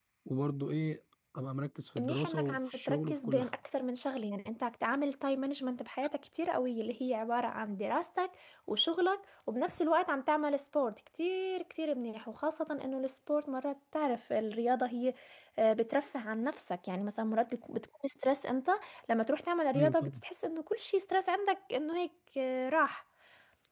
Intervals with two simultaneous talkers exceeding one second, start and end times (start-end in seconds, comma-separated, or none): 2.0-3.5